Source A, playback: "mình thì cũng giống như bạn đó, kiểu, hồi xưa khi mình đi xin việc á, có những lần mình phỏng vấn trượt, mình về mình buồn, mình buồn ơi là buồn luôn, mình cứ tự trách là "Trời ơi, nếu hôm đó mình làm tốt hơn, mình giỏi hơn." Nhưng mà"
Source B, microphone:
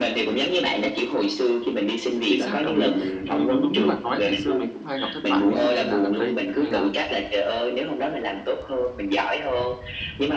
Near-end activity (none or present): present